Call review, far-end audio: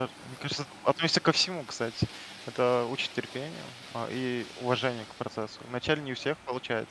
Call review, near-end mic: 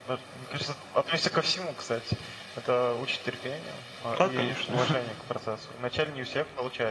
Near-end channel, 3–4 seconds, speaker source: echo only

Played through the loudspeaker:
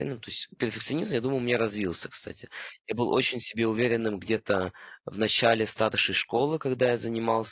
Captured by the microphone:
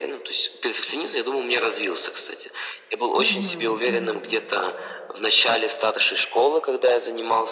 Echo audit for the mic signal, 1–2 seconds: echo only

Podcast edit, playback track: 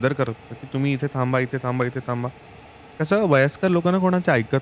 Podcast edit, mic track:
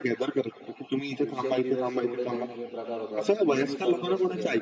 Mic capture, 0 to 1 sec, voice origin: echo only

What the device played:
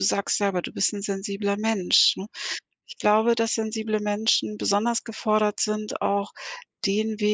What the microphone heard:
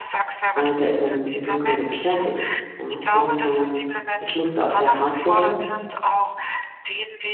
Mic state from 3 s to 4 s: both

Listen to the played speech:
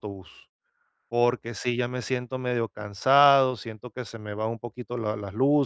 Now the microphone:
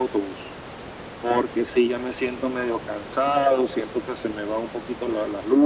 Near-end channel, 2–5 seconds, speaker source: echo only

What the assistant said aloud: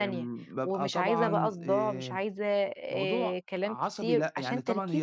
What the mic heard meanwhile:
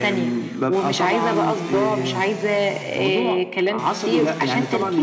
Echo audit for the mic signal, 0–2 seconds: echo only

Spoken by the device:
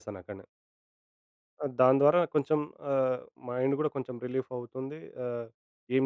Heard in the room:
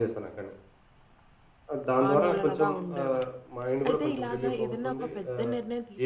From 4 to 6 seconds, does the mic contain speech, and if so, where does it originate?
both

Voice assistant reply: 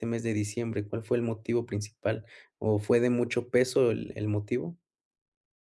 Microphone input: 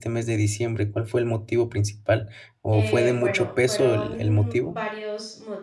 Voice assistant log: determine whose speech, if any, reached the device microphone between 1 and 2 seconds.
echo only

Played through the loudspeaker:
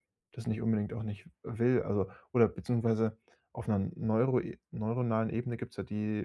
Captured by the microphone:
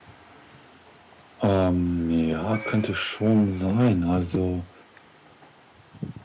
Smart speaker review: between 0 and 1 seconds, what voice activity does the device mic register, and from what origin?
neither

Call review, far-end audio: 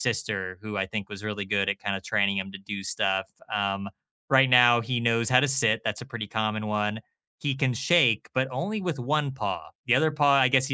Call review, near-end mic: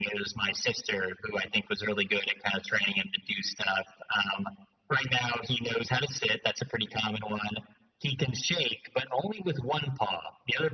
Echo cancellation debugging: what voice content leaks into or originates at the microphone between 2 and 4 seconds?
echo only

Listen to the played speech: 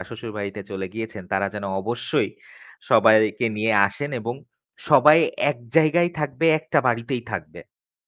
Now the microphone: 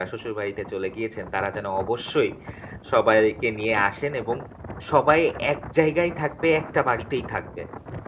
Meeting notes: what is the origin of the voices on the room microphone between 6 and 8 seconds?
echo only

